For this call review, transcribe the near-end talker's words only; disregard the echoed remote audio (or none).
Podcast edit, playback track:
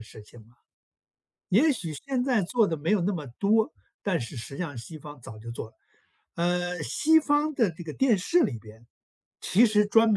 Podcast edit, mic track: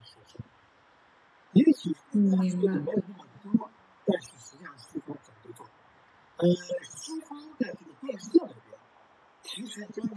嗯，明白。